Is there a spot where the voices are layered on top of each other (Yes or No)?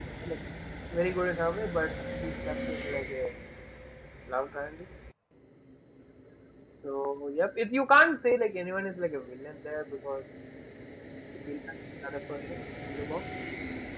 No